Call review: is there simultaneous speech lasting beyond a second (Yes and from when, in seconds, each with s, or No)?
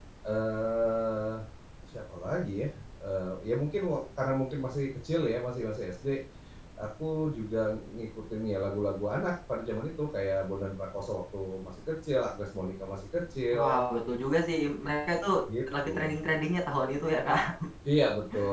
No